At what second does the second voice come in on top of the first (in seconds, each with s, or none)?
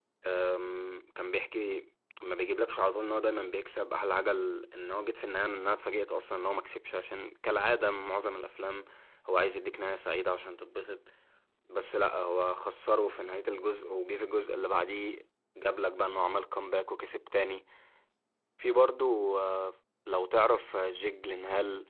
none